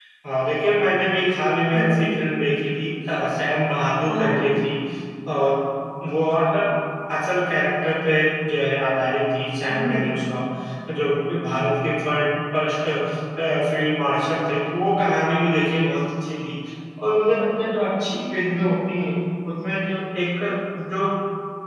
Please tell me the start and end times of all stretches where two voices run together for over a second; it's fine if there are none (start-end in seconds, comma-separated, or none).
none